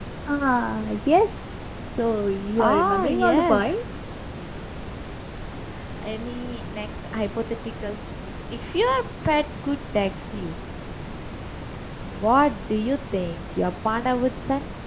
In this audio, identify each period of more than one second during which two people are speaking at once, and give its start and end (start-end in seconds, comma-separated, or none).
2.6-3.9